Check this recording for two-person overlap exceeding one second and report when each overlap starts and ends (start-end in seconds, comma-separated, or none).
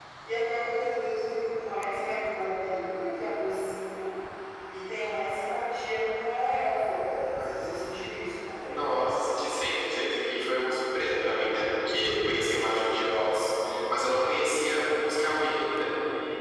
none